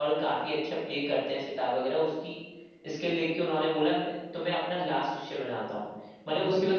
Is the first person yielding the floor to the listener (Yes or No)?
No